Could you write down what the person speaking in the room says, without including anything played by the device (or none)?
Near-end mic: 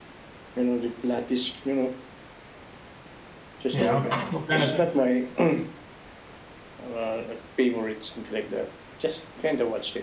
Yeah. What kind of